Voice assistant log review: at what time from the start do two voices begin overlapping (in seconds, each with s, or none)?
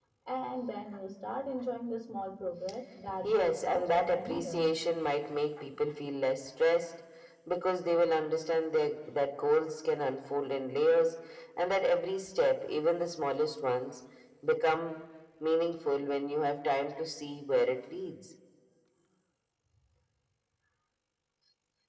3.2 s